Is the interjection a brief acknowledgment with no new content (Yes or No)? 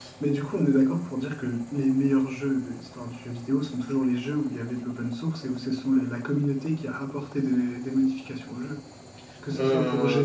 Yes